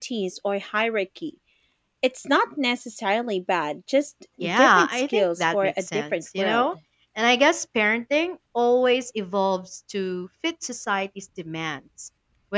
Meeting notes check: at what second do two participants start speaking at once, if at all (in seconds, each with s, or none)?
4.4 s